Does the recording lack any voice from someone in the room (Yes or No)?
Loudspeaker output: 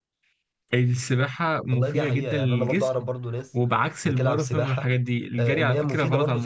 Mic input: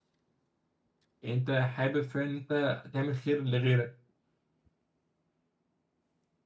No